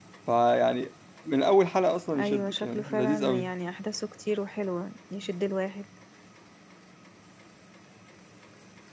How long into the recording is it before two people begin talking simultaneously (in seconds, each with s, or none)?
2.1 s